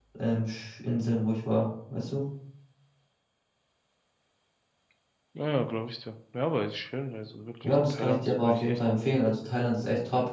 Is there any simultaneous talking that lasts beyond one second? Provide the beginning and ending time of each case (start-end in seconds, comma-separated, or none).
7.6-9.1